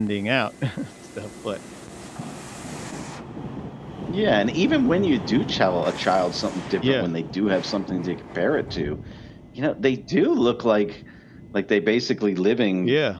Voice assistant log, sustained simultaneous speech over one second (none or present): none